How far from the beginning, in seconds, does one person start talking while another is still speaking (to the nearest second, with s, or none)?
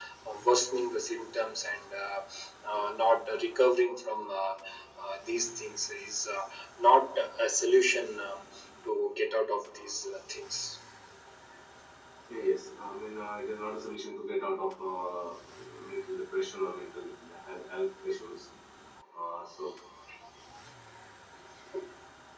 none